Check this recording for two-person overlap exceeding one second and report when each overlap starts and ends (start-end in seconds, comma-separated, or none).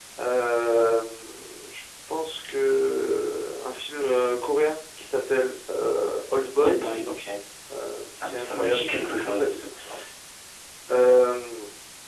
8.1-9.6